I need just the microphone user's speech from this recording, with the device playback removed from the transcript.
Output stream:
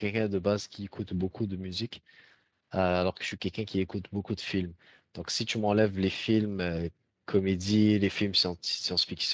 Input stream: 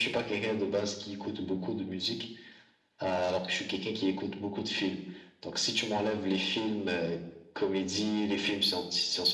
none

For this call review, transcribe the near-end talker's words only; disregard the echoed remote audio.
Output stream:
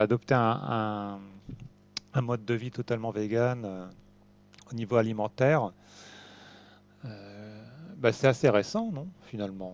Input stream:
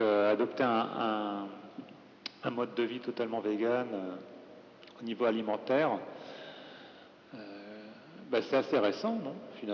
none

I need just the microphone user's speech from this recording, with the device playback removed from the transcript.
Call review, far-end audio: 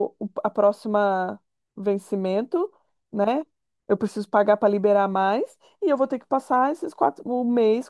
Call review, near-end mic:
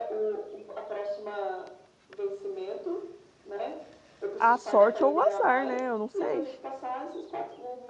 A sorte ou o azar, né? Eu não sei.

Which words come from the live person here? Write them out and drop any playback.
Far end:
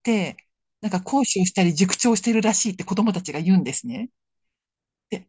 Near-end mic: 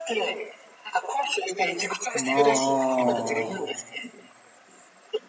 ま

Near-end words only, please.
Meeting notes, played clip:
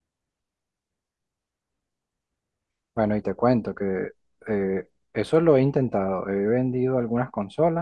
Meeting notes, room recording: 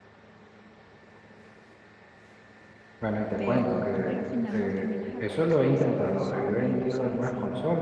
pero tú a la final no terminas de conocer a esas personas y no saben si,

